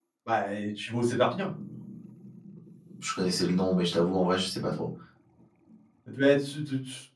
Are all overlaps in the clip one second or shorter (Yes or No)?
Yes